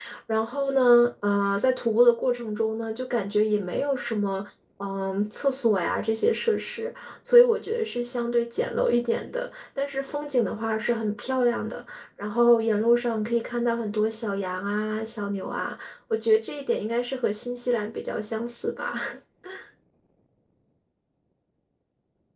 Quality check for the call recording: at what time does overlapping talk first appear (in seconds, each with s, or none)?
none